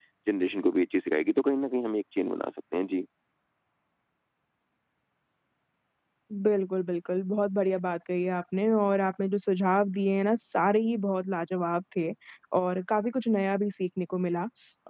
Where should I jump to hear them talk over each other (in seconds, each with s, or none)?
none